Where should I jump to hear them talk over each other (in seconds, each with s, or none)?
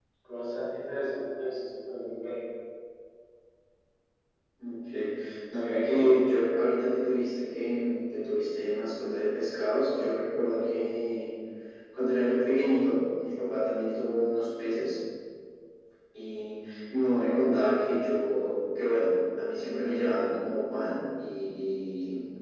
none